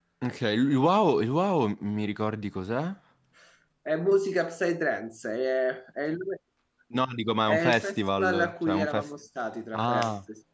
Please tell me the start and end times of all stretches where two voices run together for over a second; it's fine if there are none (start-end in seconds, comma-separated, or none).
7.5-9.1